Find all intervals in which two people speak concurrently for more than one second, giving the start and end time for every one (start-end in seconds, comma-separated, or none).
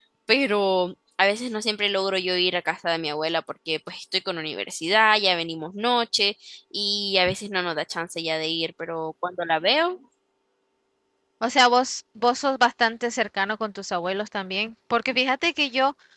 none